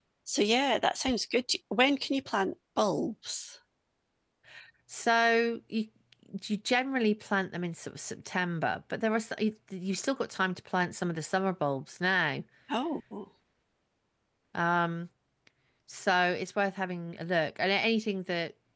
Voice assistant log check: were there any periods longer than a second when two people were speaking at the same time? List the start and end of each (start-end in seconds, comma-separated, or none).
none